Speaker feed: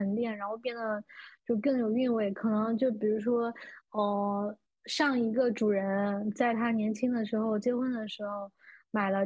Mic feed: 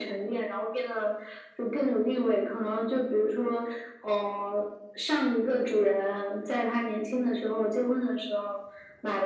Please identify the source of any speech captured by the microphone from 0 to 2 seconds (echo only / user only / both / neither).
echo only